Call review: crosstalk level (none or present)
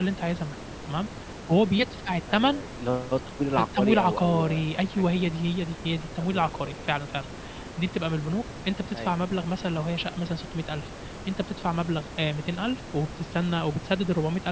present